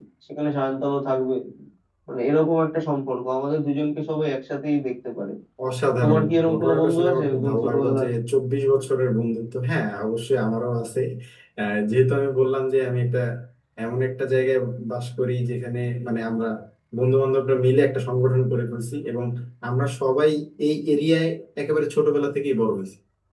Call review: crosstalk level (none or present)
present